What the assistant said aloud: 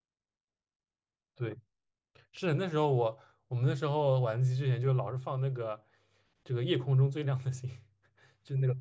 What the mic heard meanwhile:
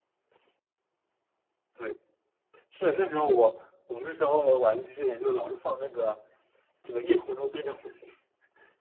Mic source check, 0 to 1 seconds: neither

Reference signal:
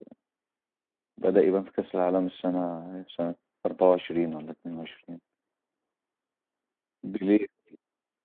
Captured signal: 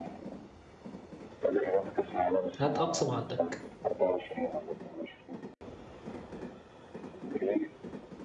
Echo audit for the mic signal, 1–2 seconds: echo only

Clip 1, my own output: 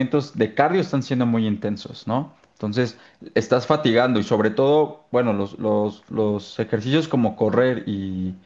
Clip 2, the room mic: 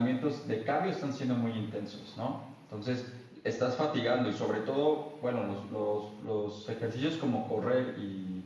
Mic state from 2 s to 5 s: echo only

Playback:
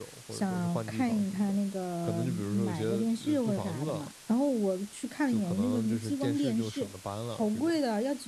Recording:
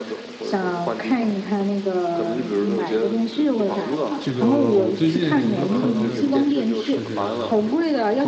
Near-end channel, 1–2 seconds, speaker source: echo only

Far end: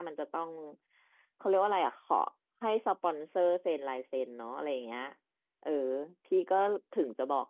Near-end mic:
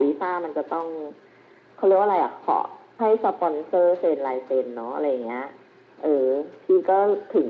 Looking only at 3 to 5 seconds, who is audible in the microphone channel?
echo only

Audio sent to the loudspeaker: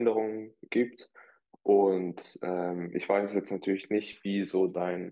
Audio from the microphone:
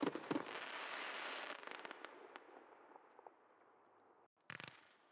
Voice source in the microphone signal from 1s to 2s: neither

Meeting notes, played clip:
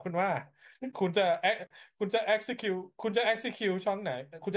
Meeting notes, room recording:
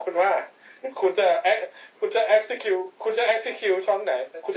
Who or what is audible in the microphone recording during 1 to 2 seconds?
echo only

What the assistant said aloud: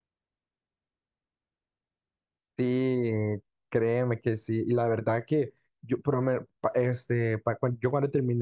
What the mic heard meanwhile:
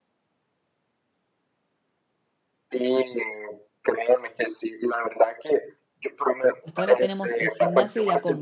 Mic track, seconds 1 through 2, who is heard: neither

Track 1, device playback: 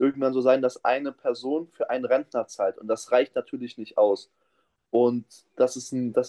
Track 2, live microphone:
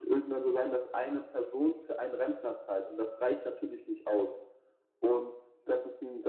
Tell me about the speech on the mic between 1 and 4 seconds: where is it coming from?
echo only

